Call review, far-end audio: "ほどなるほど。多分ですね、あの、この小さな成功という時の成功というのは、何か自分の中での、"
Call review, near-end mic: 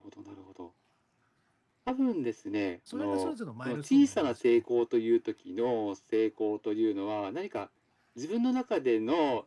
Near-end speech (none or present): present